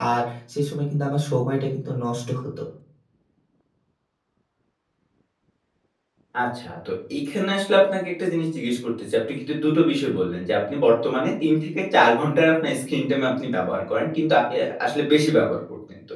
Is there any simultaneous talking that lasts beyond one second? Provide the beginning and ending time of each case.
none

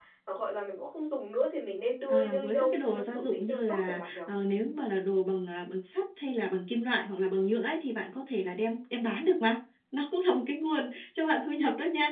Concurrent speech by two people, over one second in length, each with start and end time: 2.1-4.2

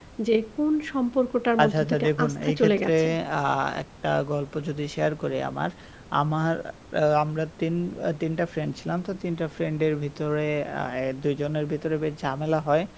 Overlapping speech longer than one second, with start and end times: 1.6-2.9

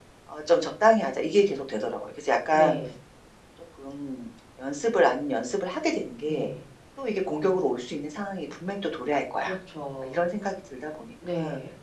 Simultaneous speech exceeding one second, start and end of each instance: none

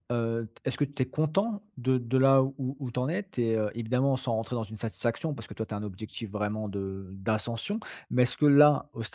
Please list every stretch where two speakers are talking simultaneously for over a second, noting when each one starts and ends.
none

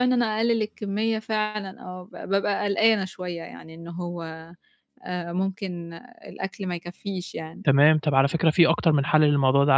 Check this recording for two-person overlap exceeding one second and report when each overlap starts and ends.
none

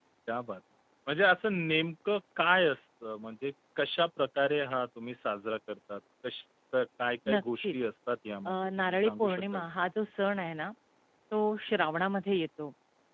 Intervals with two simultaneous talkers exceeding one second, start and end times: 8.4-9.7

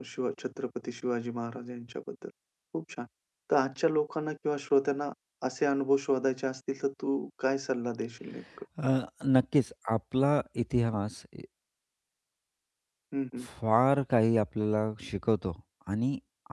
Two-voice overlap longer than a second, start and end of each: none

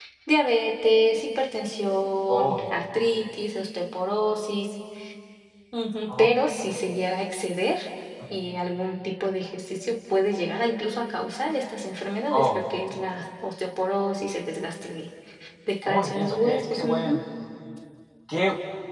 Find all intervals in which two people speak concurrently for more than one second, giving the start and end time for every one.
15.8-17.2

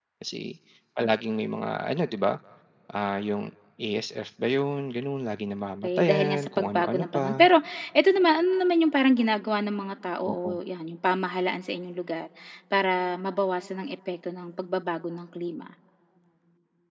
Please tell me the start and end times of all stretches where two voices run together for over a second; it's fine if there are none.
5.8-7.5

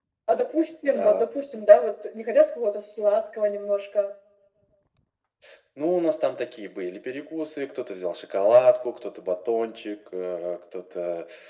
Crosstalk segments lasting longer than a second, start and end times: none

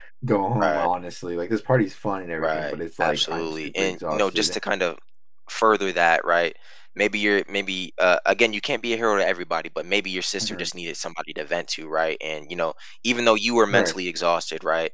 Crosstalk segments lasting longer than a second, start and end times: 2.4-4.6

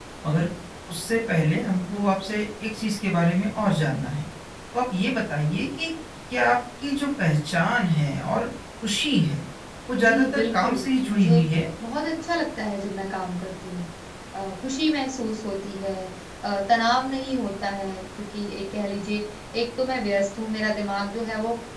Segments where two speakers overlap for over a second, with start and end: 10.0-11.4

